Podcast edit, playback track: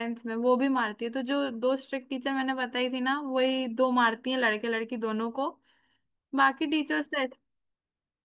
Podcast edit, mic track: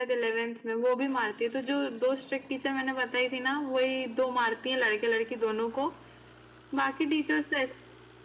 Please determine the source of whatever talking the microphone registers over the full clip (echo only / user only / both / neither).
echo only